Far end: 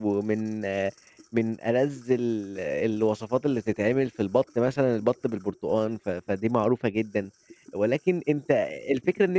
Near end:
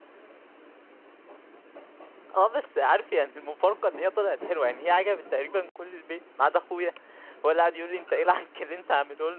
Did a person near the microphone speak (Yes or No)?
Yes